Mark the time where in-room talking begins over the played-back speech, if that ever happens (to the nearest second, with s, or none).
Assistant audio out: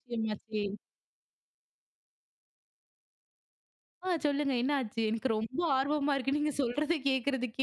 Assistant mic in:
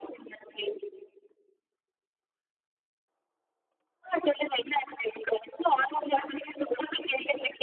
none